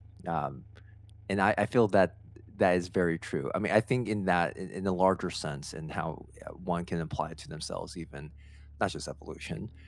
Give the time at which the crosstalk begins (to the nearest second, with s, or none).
none